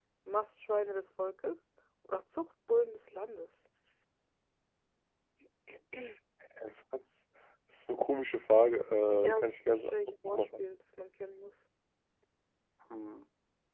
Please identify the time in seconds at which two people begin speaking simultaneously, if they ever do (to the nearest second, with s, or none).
9 s